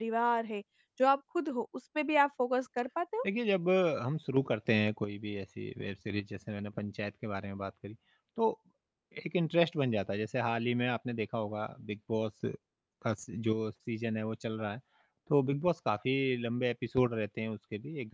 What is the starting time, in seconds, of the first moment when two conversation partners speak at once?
none

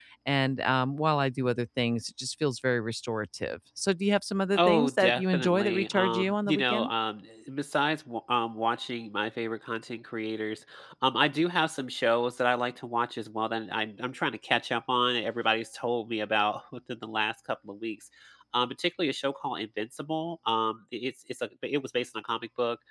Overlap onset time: 4.6 s

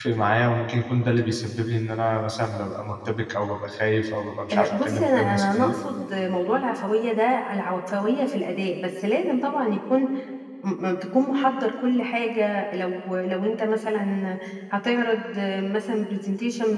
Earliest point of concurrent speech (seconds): 4.5 s

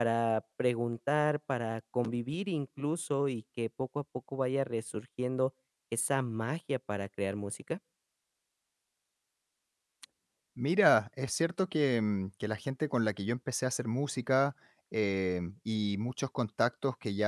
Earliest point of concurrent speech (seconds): none

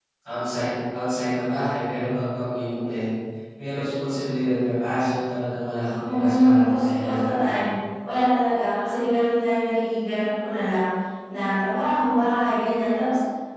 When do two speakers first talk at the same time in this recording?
6.0 s

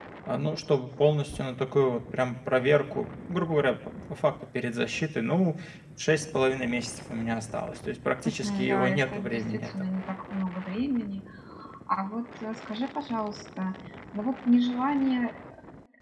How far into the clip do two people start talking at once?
8.2 s

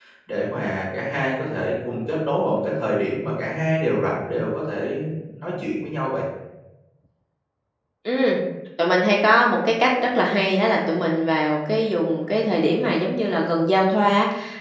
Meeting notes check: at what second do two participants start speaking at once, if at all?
none

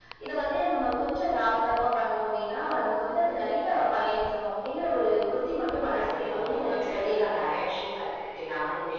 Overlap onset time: 5.9 s

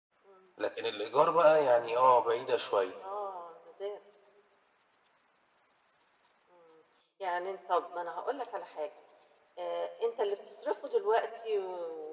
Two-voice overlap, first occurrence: none

